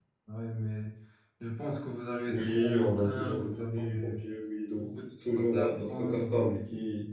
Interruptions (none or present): present